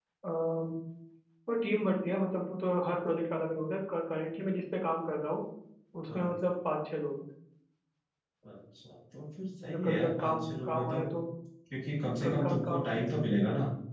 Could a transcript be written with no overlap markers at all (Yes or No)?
No